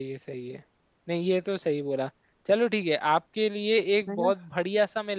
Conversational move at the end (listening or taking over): listening